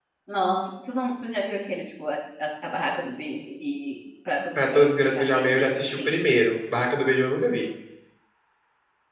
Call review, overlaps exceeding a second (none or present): present